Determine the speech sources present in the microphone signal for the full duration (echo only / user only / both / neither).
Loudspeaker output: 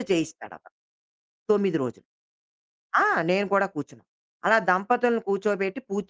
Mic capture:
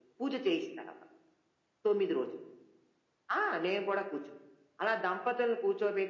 echo only